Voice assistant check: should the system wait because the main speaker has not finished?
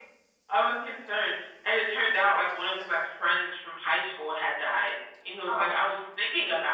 Yes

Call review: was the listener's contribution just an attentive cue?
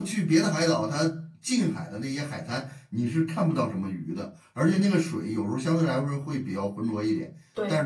Yes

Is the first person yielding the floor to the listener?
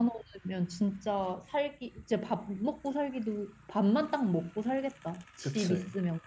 Yes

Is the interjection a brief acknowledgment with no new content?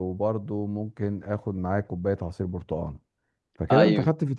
Yes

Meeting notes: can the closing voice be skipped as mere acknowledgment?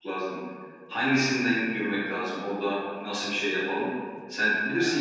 Yes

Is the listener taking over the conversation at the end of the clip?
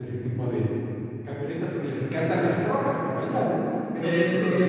No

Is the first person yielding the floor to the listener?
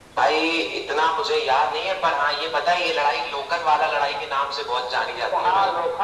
Yes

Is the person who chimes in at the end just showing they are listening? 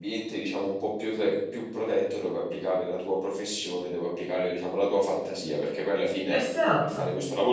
Yes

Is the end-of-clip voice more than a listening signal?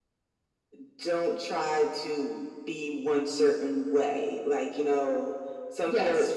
No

